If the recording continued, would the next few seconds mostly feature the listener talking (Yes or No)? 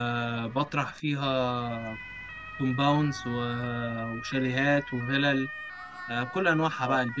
No